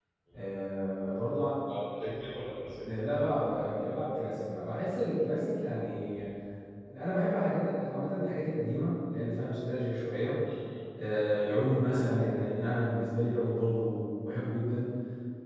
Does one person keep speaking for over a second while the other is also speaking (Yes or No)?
No